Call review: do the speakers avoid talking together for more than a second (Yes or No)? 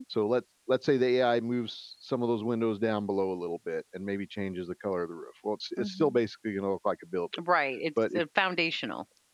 Yes